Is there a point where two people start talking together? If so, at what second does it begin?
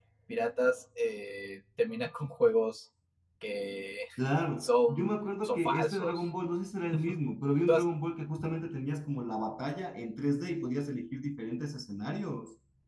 5 s

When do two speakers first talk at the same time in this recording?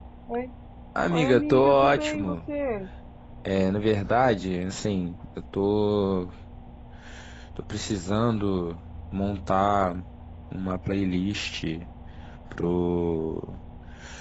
1 s

